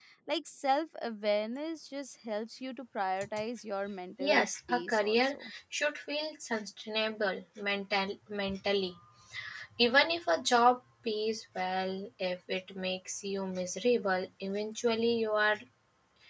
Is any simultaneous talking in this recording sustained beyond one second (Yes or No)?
Yes